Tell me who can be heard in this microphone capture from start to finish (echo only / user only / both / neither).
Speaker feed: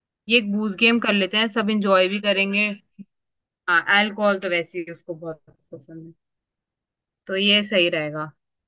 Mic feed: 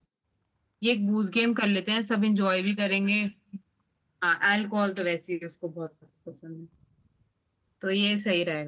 echo only